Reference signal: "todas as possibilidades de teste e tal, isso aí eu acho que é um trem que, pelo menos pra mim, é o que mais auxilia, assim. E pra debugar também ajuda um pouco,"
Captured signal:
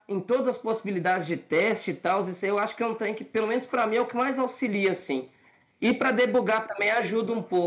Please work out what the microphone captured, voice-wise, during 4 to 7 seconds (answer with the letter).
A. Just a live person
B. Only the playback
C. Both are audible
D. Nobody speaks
B